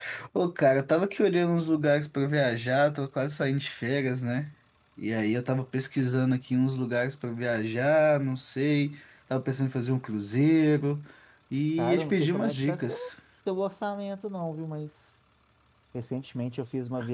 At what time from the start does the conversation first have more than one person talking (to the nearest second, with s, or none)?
12 s